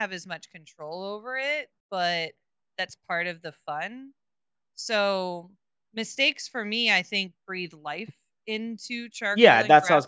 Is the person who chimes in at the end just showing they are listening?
No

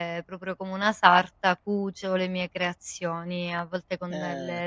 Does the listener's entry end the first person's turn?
No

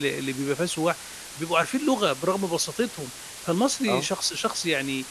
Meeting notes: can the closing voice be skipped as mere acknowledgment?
Yes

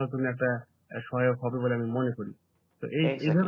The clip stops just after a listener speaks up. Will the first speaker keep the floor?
No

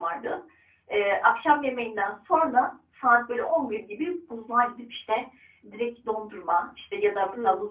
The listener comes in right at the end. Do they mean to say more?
No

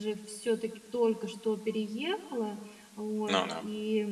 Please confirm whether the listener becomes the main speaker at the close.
No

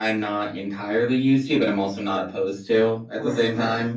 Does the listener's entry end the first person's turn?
Yes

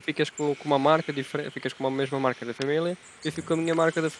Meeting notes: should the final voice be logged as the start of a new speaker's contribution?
No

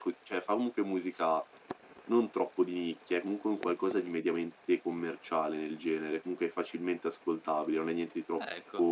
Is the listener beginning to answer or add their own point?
No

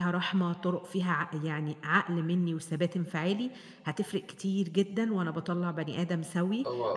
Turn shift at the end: No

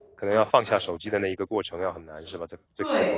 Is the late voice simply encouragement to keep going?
No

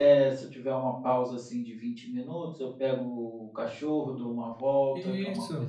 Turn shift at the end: No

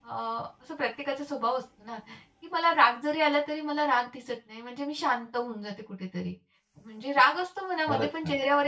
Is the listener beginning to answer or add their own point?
No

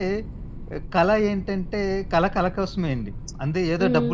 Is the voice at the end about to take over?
No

